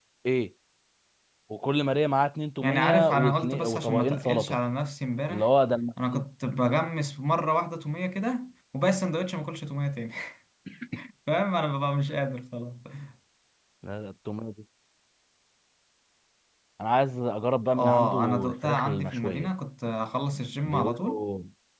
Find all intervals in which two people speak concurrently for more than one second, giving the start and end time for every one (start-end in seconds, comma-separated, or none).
2.6-4.5, 17.7-19.5